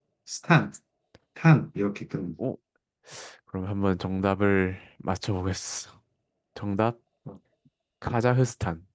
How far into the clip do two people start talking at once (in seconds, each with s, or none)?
none